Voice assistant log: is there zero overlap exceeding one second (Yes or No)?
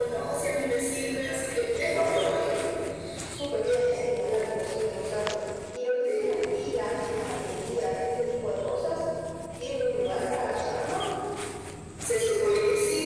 Yes